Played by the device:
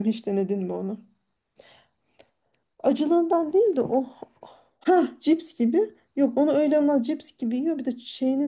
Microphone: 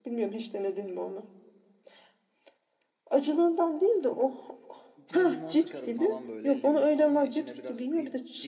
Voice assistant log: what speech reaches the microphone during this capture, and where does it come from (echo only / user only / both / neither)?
both